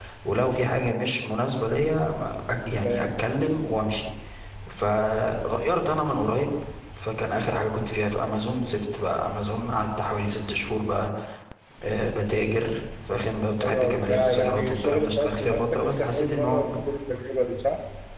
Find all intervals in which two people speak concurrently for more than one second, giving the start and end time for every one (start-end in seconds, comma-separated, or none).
13.6-16.6